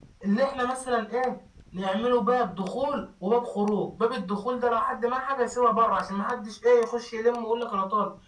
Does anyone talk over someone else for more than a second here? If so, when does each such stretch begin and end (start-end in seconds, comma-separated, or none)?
none